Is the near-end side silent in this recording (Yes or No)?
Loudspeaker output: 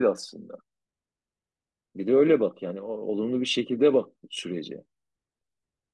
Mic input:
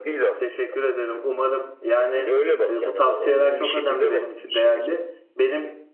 No